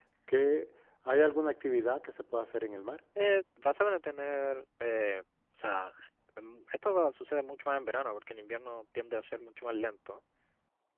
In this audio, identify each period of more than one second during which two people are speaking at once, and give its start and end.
none

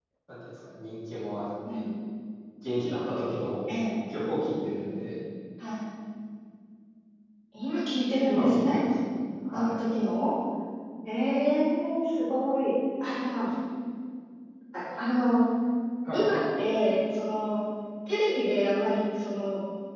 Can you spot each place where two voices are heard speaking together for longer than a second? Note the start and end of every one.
none

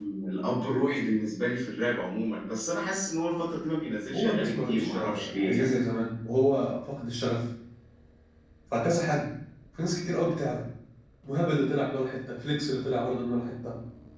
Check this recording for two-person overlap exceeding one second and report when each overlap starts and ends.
4.1-5.7

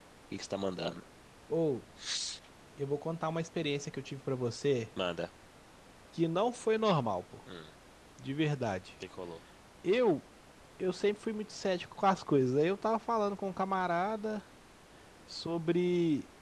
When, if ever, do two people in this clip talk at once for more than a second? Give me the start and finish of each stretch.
none

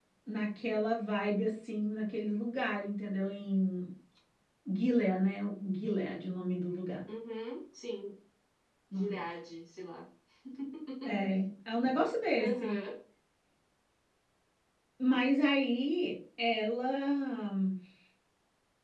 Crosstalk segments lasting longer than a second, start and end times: none

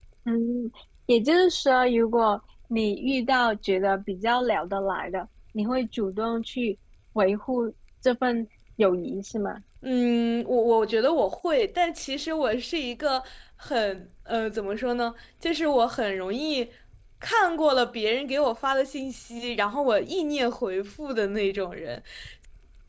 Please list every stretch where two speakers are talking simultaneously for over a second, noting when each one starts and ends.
none

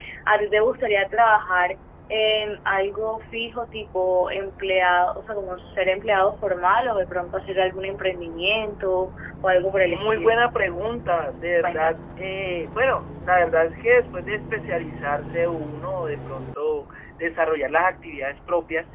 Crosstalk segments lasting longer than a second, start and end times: none

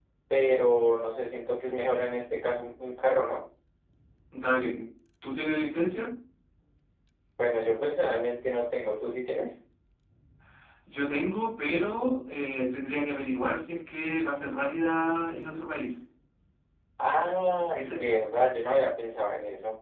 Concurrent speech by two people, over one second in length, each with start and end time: none

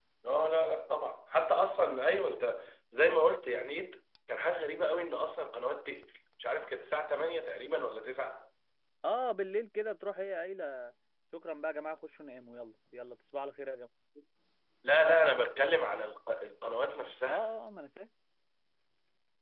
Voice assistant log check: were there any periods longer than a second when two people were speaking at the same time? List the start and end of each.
none

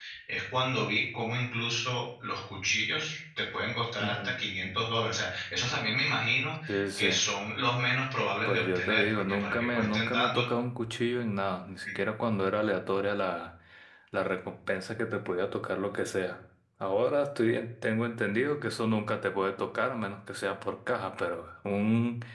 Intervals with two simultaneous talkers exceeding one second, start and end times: 8.4-10.5

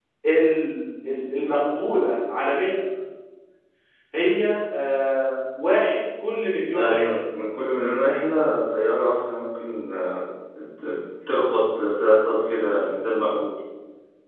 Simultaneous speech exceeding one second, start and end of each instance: none

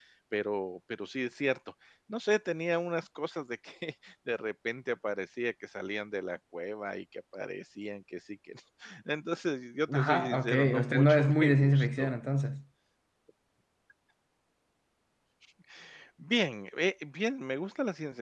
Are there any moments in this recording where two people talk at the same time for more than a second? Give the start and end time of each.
9.9-12.1

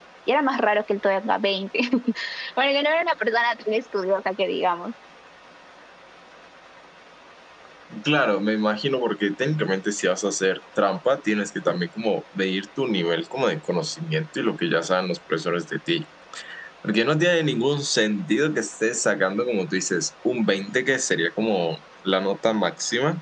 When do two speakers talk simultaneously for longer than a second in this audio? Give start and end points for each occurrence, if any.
none

